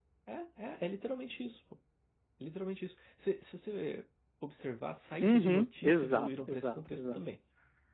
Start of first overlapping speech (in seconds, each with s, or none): 5.2 s